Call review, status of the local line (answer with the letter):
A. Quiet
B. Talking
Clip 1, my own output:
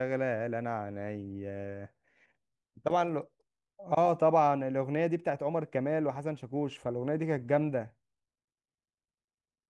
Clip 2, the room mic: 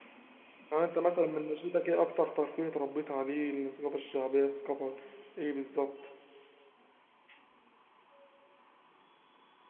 B